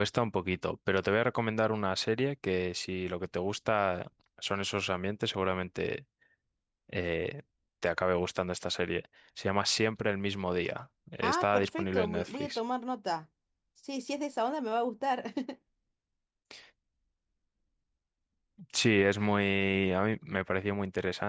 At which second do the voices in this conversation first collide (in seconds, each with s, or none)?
11.2 s